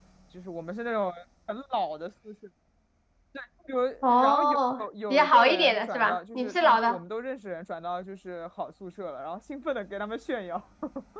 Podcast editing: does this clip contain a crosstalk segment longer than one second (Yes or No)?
Yes